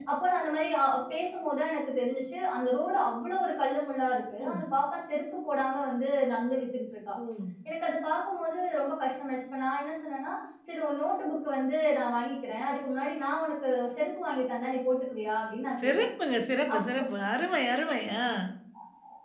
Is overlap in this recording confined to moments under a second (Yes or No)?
Yes